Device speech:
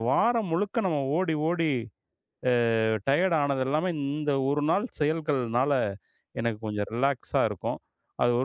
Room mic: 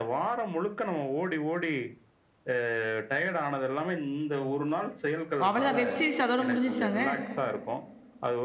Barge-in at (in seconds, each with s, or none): 5.5 s